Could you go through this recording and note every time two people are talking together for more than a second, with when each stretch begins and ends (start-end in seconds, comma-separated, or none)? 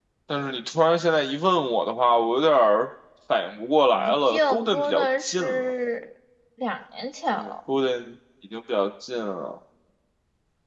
3.9-5.6